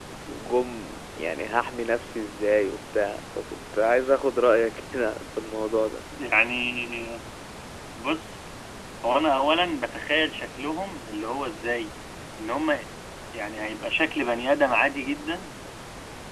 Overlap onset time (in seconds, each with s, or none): none